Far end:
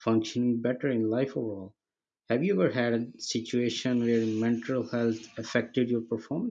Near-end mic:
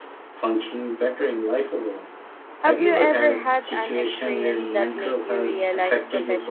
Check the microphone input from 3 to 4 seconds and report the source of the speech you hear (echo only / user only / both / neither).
both